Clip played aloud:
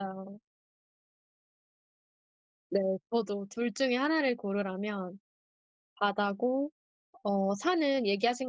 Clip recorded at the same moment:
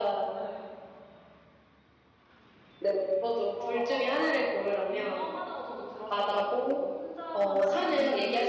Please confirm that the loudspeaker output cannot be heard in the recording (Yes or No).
No